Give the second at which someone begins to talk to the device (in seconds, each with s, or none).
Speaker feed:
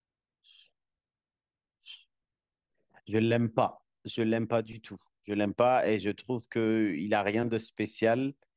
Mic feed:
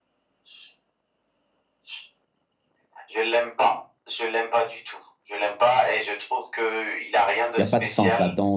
7.6 s